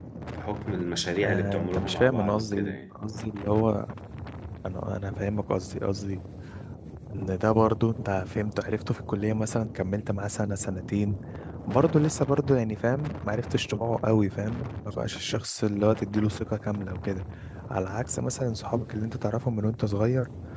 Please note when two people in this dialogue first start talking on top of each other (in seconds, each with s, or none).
1.2 s